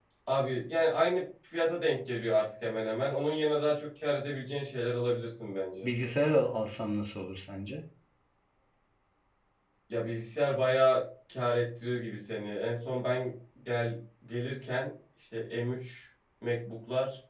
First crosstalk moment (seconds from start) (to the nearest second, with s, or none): none